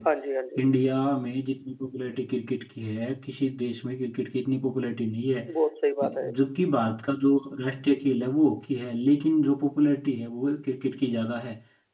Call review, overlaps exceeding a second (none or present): none